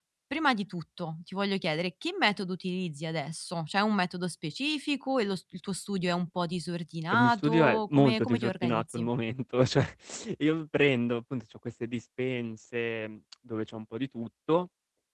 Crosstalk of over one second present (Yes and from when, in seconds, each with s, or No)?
Yes, from 7.1 s